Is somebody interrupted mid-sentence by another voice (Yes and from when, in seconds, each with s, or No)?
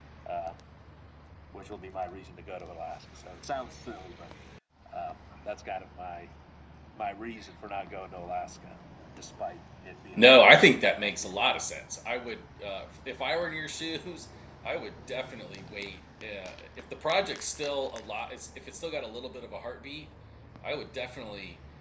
Yes, from 10.1 s